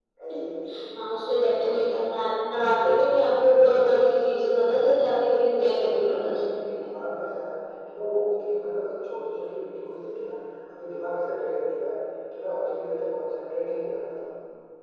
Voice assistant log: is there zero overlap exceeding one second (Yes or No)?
No